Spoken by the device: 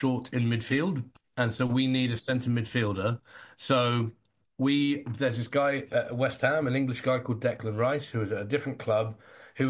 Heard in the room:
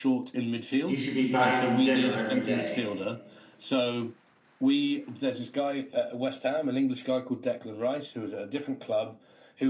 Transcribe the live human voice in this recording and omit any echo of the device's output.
he should be buying him dinner every day.

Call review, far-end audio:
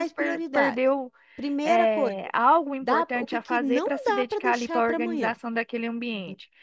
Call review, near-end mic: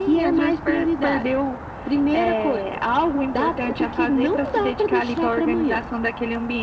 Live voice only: none

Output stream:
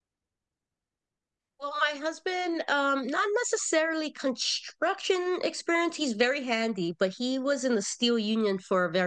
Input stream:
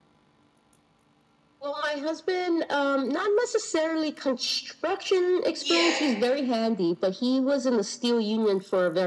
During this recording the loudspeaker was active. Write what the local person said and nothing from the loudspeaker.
yeah,

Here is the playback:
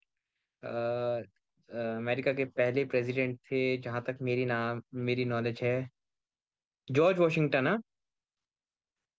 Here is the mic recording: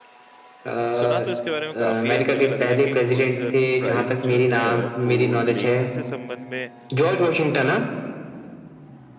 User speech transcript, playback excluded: सुना तो इसके बारे में काफी है और मुझे लग रहा है कि पुलित्जर प्राइज जो है वो लेखन से संबंध में

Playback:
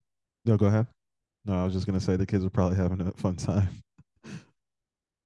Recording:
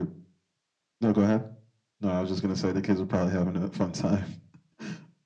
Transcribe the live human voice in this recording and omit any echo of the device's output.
none

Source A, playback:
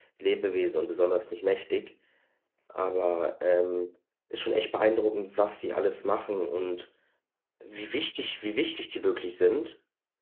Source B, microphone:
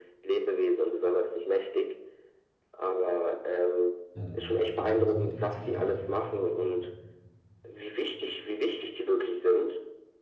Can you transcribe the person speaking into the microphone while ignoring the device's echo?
ja, dann, dann funktioniert die ganze Kette nicht mehr.

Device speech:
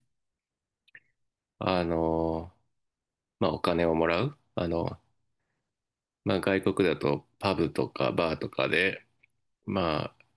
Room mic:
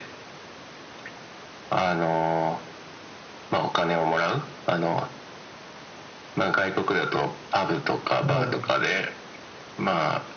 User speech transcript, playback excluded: ええ、

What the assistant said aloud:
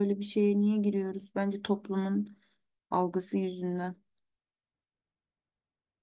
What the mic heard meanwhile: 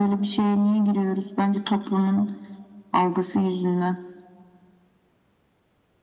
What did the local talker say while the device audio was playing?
none

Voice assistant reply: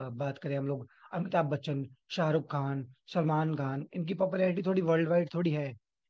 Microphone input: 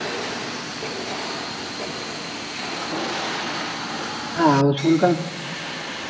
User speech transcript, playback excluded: हाँ हाउसफुल का

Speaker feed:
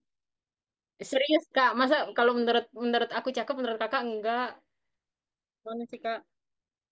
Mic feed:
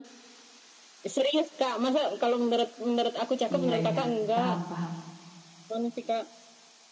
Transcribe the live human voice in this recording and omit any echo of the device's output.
Iya, iya. Paham, paham.

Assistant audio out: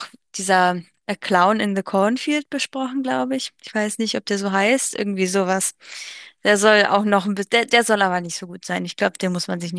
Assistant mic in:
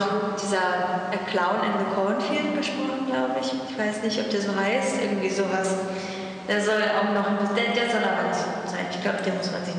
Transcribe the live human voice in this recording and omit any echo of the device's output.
none

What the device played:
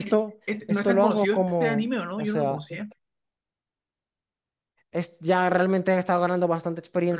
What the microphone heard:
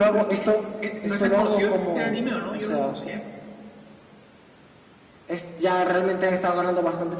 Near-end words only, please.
none

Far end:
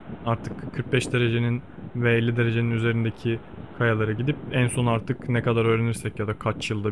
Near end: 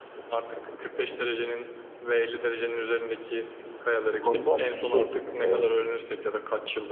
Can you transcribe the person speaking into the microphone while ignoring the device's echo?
bu konuda şey e,

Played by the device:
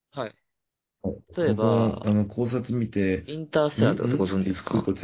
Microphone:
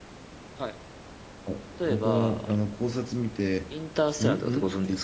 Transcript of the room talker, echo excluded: none

